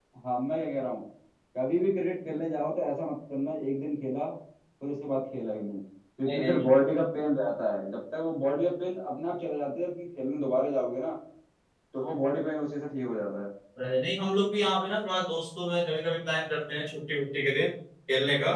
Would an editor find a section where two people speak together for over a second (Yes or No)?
No